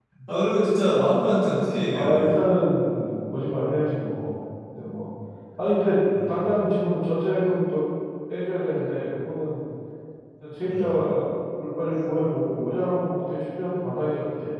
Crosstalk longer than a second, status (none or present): none